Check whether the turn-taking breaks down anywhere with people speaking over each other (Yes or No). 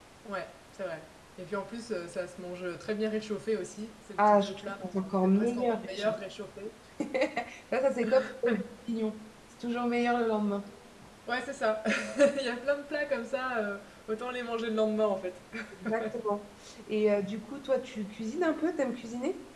Yes